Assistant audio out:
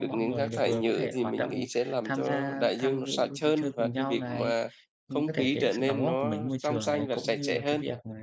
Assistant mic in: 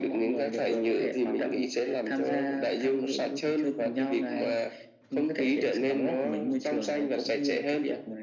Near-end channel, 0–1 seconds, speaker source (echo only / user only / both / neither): echo only